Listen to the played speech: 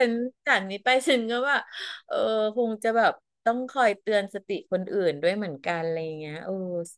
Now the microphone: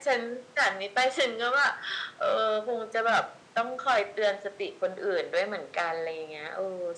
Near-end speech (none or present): none